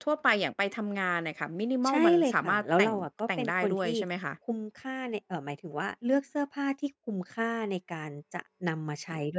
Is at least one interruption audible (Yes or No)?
Yes